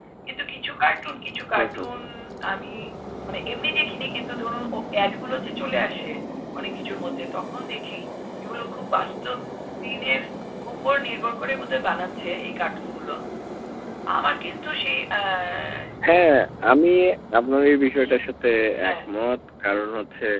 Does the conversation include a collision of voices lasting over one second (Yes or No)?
No